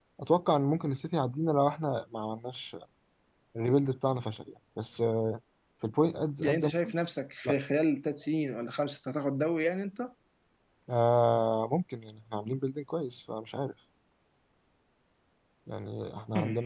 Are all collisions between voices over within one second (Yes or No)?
Yes